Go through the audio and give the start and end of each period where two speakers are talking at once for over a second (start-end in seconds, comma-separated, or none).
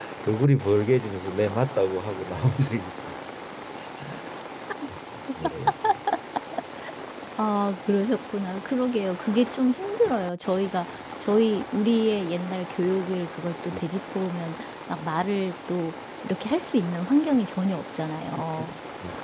none